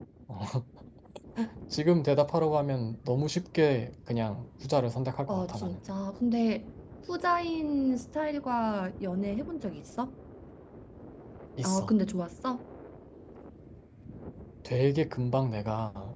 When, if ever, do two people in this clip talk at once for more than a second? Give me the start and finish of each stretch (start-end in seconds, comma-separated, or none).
none